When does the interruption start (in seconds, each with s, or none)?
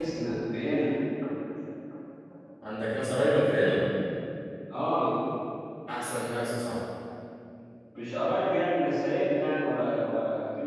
none